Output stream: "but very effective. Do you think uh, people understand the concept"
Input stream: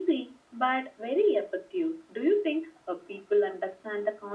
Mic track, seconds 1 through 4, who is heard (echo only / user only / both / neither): echo only